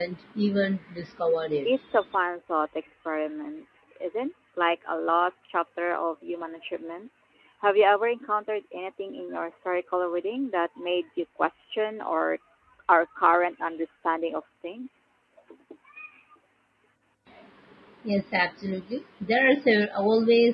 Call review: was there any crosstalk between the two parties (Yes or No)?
No